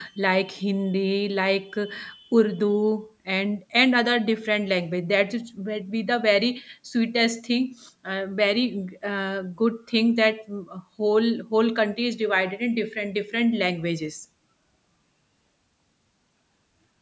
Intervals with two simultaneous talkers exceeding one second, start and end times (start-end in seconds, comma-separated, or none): none